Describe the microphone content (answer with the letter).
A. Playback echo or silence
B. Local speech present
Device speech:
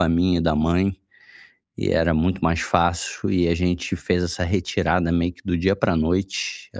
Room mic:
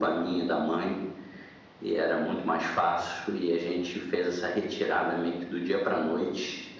A